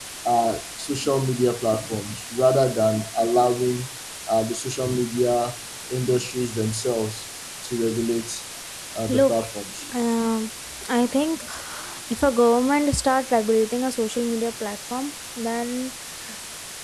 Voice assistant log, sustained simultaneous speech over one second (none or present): none